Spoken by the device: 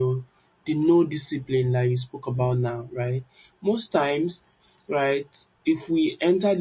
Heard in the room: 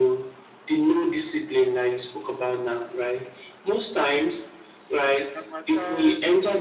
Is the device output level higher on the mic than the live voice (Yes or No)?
Yes